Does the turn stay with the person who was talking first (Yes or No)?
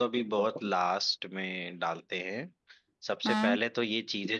Yes